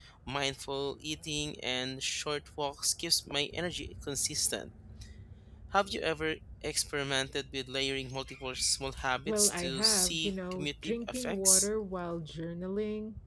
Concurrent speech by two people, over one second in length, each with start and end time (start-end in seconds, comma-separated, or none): 9.2-11.7